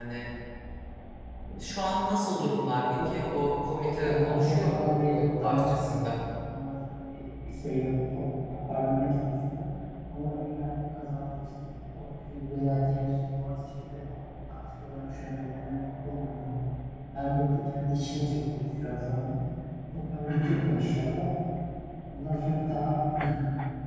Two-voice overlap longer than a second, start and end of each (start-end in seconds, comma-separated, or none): 4.0-6.2